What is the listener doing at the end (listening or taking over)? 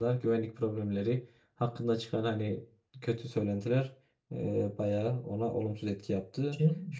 taking over